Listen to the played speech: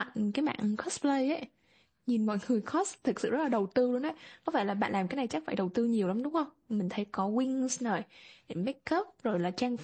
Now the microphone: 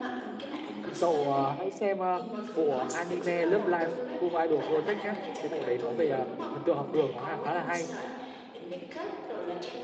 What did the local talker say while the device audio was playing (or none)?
thì cậu ờ, hãy xem ờ, bộ anime Love Live School Idol Project nhé. Cái bộ đấy nó về ờ, thần tượng học đường nó ha- khá là hay